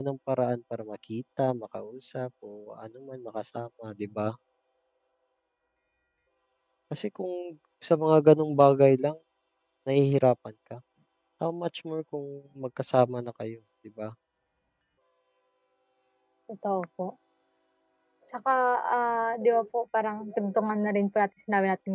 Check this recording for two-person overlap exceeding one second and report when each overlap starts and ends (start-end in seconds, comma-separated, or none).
none